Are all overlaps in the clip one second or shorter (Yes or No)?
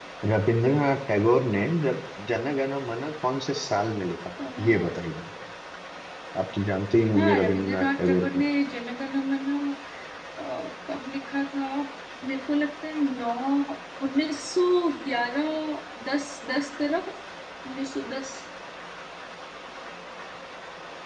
No